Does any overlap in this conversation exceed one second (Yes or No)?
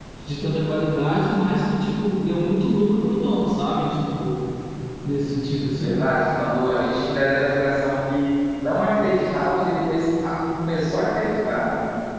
No